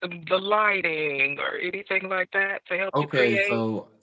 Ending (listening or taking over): taking over